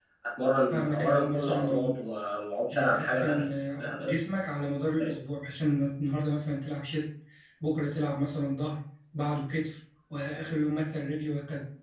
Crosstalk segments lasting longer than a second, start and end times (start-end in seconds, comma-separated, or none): 0.7-1.9, 2.7-4.1